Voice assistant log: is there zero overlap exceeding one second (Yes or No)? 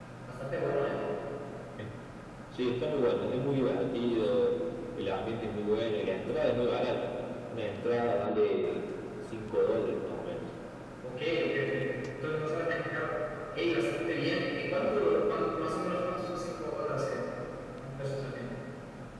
Yes